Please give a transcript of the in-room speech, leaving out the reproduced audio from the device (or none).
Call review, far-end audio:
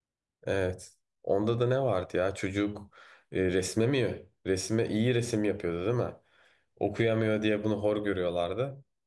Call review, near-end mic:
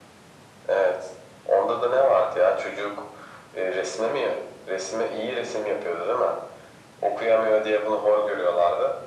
none